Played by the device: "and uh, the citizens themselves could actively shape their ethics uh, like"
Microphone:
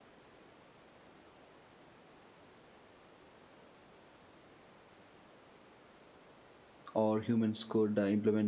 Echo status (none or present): none